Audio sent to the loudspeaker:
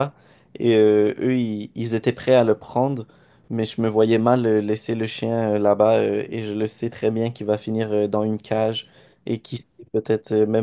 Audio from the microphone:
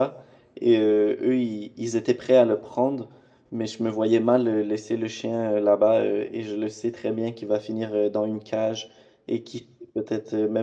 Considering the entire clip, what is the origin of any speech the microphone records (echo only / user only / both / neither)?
echo only